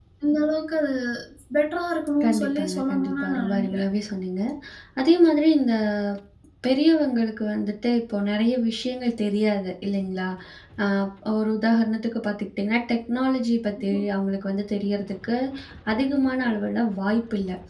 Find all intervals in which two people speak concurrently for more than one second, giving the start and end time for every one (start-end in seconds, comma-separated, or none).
2.2-3.8